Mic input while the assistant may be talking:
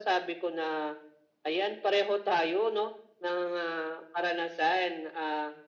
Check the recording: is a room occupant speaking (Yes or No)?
No